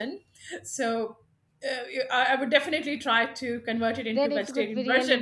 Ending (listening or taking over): taking over